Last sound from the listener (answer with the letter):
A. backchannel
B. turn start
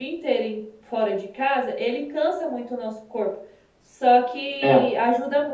A